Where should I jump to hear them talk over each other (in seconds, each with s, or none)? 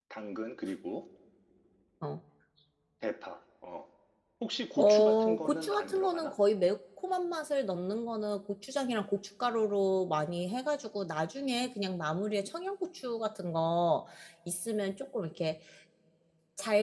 4.8 s